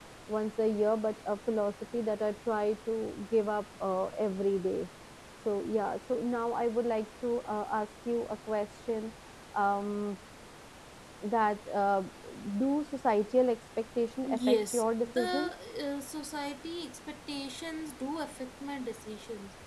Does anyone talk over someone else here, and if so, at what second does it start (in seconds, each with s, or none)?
14.2 s